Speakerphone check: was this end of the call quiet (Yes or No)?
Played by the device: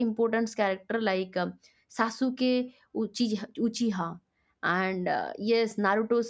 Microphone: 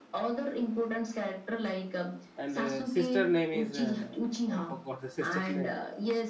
No